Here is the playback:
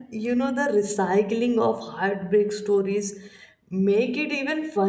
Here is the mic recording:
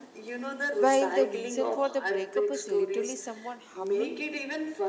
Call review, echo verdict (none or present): present